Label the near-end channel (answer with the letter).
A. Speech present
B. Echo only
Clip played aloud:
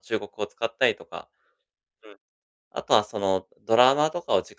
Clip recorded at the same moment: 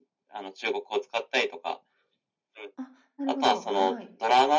A